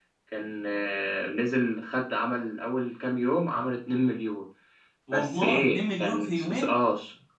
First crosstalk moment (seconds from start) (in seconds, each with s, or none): 5.1 s